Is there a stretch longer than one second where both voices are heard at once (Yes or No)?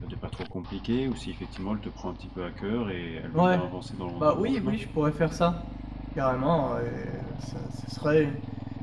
No